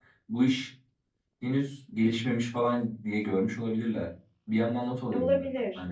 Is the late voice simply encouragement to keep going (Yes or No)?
No